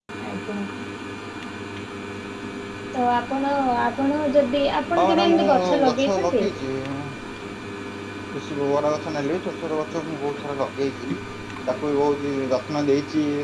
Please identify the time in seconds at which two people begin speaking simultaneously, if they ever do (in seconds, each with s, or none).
5.0 s